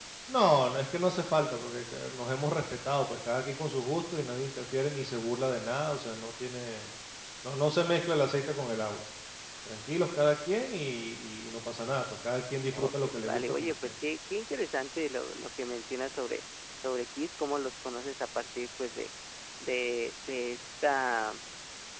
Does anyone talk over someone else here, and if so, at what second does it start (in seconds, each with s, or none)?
12.7 s